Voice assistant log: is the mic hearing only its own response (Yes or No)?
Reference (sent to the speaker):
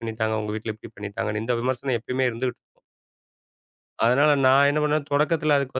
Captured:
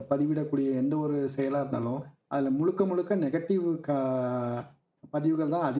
No